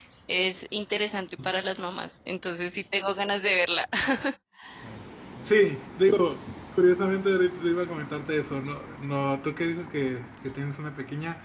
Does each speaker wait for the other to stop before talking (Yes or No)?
Yes